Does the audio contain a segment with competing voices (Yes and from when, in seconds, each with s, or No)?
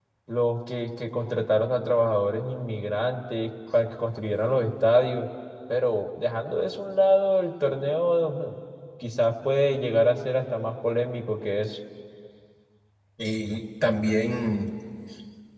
No